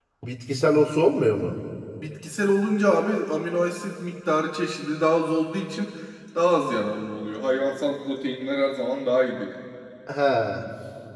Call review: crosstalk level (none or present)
none